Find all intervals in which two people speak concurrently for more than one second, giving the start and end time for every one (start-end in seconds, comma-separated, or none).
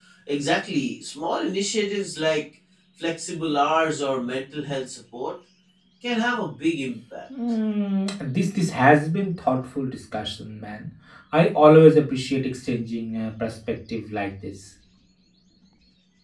none